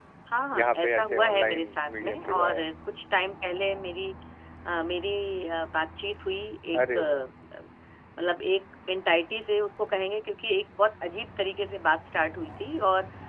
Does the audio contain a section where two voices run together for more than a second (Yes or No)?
Yes